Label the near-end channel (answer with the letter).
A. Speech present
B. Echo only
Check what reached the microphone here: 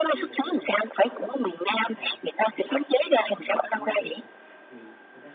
A